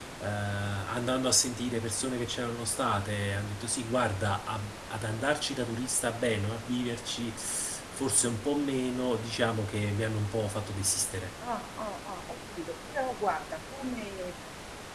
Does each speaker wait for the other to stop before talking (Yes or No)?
Yes